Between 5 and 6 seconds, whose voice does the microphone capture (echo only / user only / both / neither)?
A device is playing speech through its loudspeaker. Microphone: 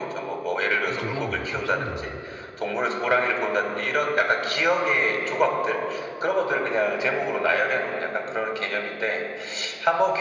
echo only